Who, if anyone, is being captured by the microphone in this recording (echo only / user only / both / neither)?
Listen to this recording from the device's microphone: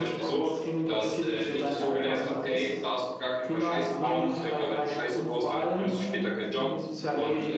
both